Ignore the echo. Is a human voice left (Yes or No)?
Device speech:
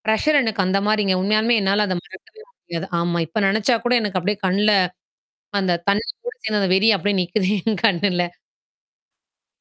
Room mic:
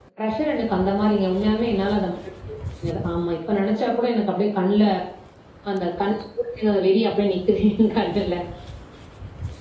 No